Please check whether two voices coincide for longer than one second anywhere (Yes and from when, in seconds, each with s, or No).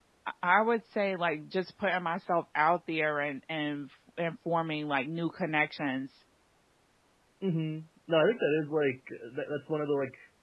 No